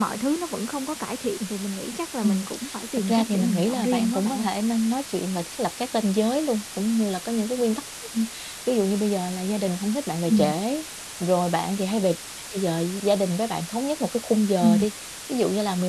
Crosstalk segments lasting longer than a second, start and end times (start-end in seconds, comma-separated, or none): 3.1-4.5